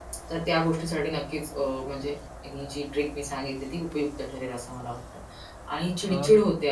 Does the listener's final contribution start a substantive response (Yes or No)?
No